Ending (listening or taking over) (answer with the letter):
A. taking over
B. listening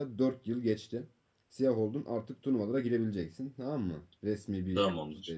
B